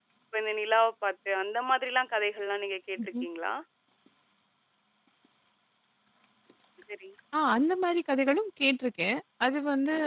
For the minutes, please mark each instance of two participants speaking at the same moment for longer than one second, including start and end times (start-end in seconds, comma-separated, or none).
none